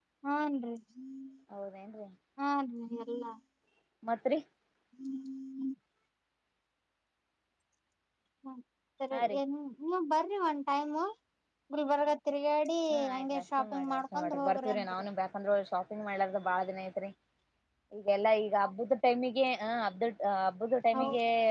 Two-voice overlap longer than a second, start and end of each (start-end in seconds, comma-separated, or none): 13.1-15.1